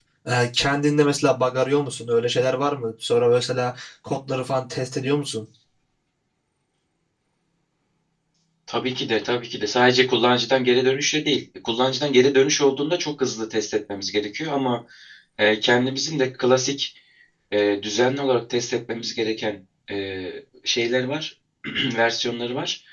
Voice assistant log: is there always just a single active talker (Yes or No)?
Yes